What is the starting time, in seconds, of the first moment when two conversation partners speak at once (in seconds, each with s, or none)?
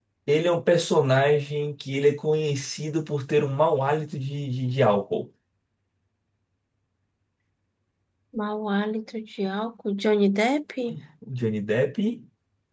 none